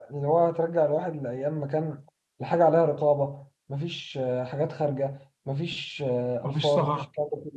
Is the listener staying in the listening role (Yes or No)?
Yes